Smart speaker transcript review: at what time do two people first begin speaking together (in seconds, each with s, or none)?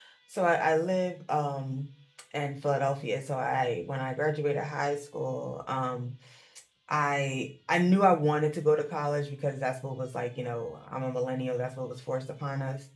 none